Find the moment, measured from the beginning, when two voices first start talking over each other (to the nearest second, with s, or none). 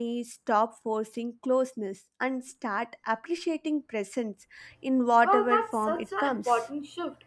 5 s